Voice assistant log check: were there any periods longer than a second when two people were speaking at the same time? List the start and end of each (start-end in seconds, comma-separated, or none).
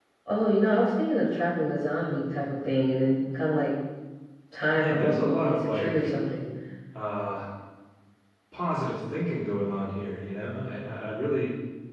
4.7-6.1